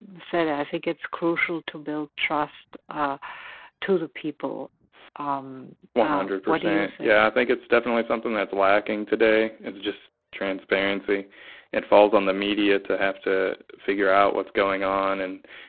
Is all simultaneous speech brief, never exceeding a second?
No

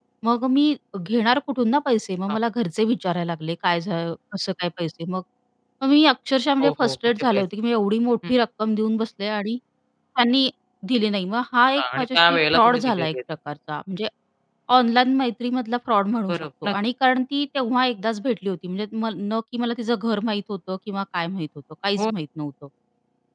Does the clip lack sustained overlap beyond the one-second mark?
No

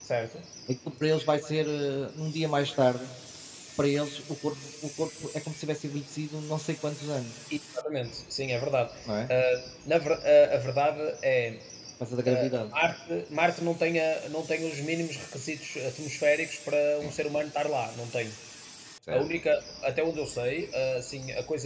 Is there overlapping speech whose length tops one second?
No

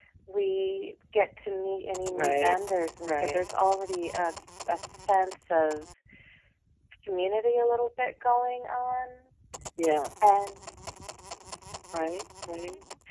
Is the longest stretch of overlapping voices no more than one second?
Yes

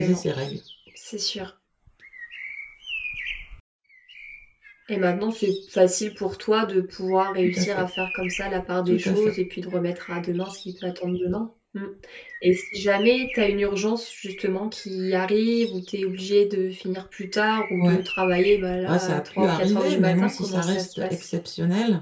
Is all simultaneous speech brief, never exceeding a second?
No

